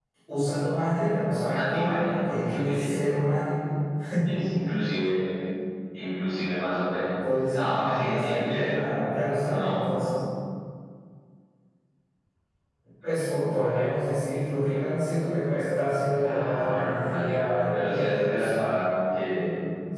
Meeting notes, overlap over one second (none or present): present